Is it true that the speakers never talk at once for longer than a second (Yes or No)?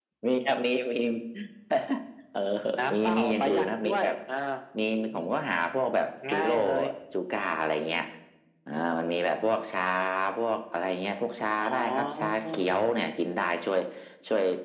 No